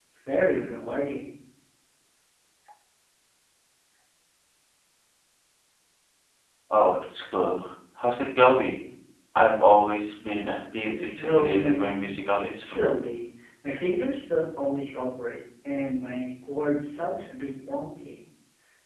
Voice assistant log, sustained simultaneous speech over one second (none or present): present